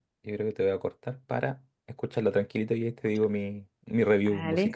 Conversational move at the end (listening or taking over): taking over